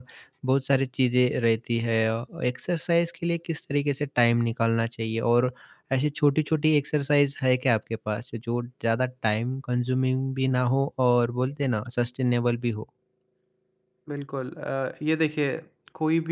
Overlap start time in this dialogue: none

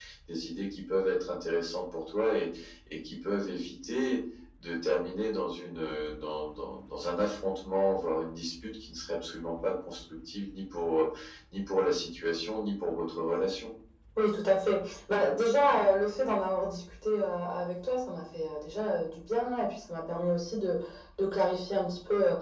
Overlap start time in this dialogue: none

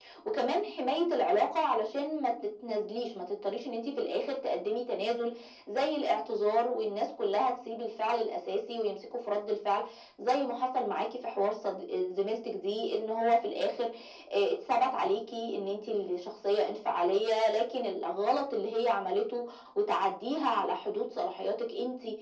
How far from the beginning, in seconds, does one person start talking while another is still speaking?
none

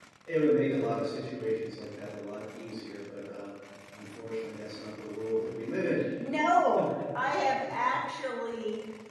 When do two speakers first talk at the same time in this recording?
none

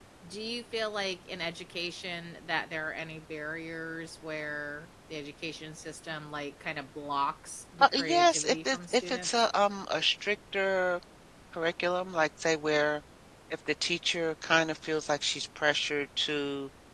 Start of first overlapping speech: 7.8 s

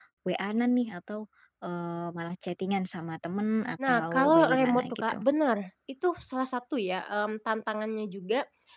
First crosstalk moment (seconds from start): 3.8 s

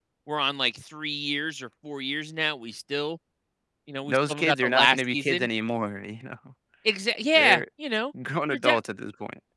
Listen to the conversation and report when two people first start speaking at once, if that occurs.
4.1 s

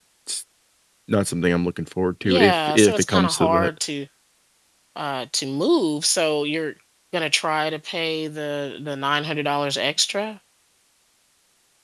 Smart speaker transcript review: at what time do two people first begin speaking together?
2.2 s

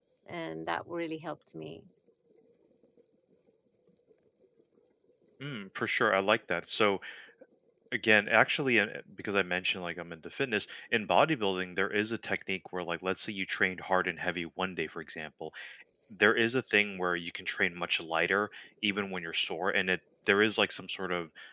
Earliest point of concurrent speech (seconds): none

